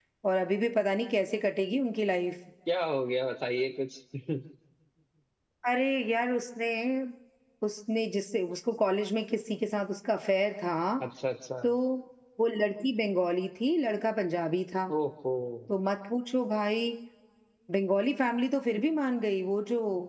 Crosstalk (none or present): none